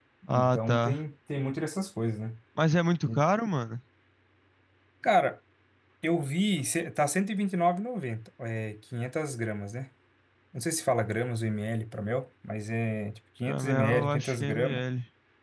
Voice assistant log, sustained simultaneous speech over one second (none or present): present